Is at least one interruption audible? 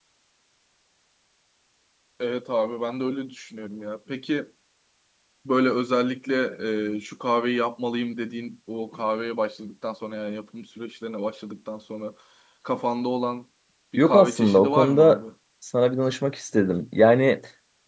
Yes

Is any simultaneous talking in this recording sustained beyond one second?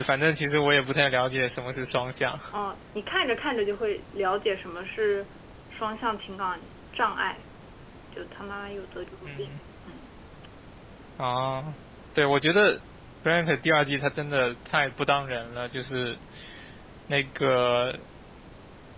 No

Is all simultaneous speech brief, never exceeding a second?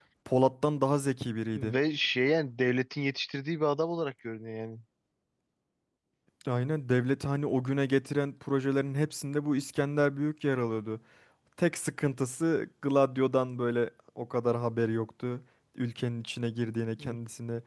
Yes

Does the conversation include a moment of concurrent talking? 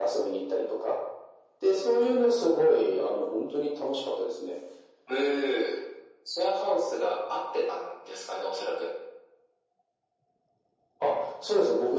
No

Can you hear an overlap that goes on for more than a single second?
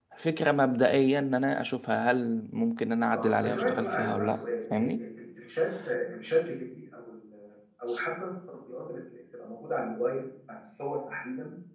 Yes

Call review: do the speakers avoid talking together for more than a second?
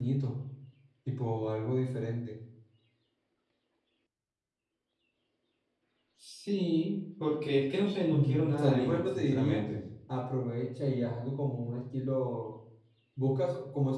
No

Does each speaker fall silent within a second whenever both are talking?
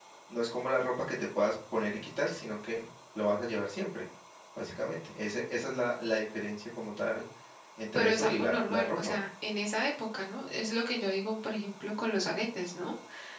No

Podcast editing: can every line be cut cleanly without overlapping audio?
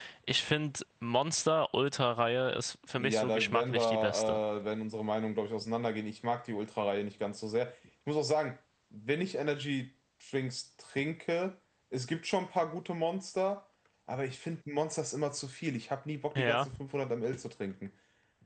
No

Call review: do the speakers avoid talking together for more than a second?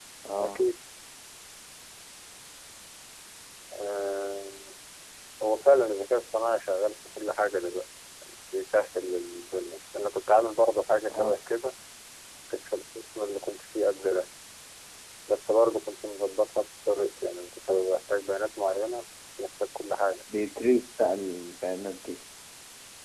Yes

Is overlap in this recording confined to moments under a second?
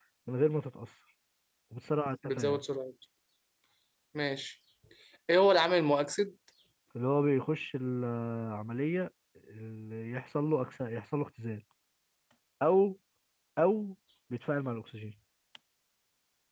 Yes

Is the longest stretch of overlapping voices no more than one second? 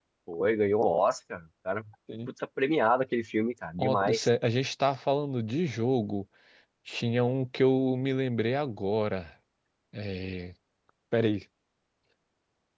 Yes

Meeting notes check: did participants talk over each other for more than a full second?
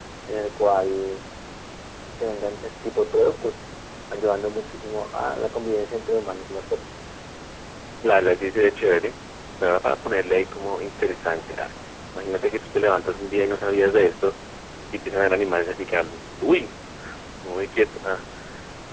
No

